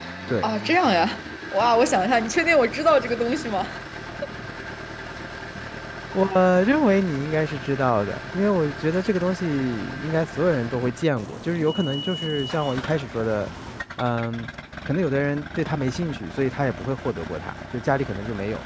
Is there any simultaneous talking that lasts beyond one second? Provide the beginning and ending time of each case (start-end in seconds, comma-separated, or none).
none